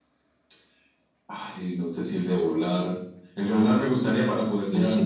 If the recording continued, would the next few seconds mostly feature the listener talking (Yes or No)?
Yes